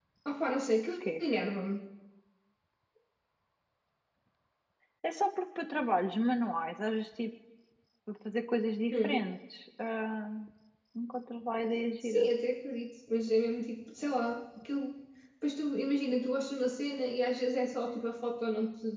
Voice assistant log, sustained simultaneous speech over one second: none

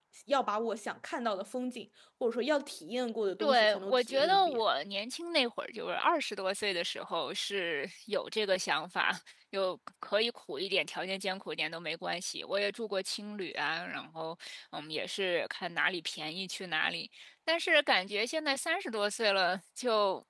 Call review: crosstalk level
present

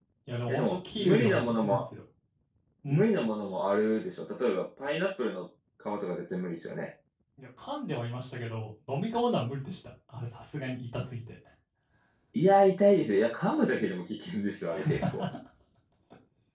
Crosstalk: present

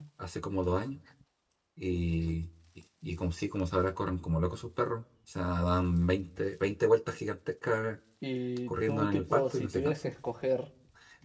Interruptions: present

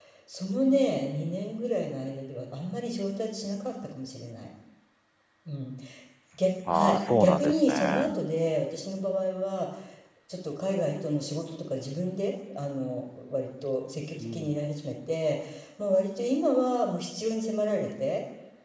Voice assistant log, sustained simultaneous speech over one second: present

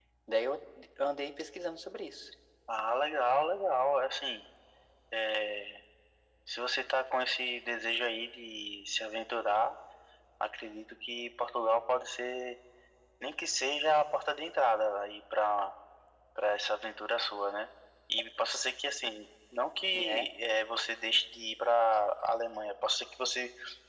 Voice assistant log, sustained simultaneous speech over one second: none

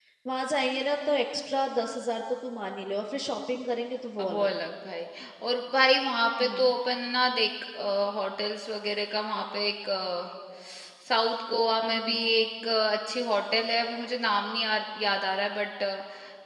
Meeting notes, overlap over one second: none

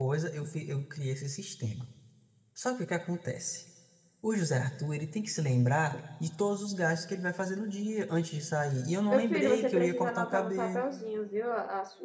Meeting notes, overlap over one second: present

